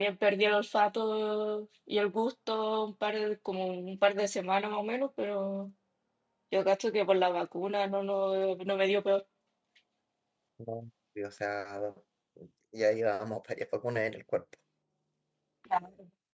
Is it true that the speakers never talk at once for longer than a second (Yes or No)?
Yes